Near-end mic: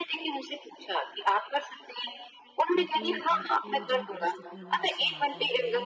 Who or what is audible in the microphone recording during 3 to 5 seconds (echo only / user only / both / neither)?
both